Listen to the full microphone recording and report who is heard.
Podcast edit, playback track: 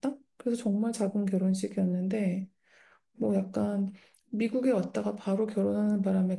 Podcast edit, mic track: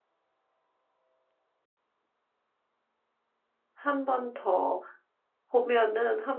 user only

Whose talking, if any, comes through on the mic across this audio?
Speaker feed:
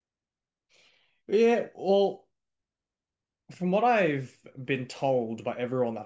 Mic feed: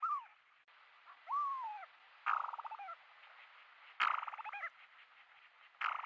neither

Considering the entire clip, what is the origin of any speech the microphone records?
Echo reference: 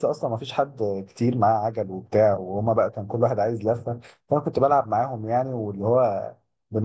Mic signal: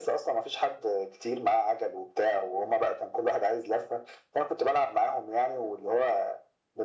echo only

